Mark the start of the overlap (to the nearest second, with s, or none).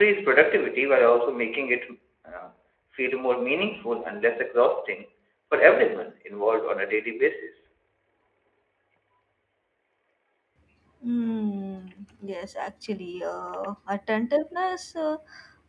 none